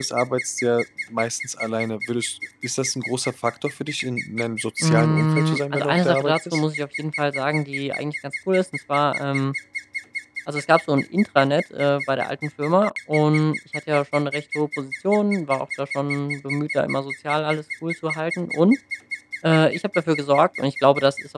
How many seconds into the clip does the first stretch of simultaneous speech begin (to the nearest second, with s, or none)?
5 s